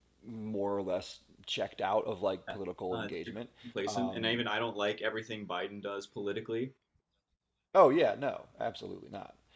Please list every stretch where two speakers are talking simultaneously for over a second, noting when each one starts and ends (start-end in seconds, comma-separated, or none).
none